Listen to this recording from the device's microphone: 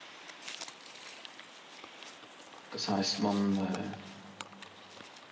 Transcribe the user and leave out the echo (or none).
Das heißt, man äh,